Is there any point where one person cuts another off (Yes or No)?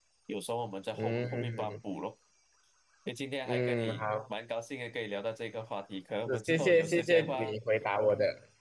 Yes